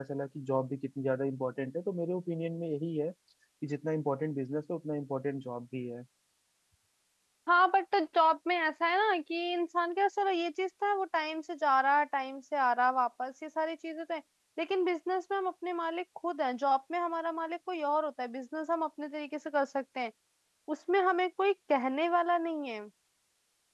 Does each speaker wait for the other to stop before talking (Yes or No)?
Yes